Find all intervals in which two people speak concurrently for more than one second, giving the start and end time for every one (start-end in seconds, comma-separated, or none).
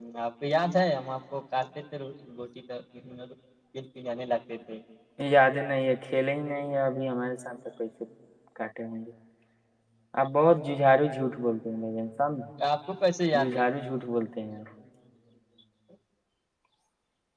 none